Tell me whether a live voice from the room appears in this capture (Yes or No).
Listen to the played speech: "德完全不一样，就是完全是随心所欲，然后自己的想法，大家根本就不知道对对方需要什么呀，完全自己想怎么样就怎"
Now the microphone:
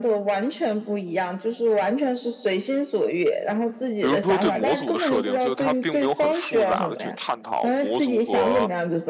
Yes